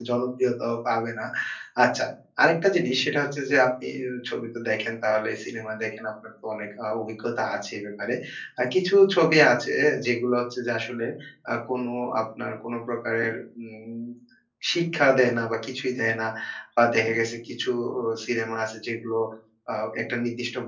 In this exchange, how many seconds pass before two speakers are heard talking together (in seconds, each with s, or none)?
none